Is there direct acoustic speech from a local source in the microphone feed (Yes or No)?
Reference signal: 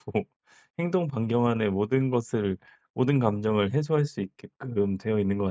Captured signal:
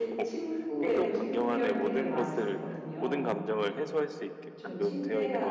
Yes